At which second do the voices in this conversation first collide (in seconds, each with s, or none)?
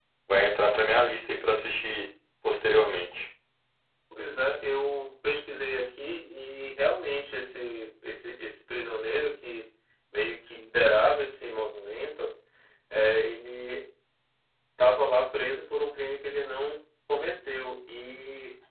none